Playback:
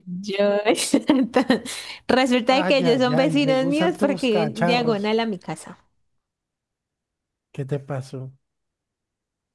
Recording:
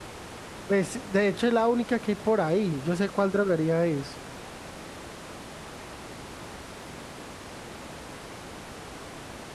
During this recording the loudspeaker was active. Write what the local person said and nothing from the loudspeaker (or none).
Pues, de hecho, es la única que hay por ahí. Yo sé cuál droguería es.